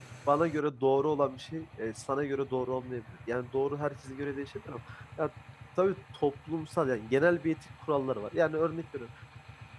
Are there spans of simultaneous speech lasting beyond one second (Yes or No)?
No